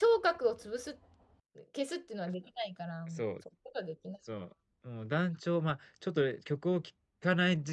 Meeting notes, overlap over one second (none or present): none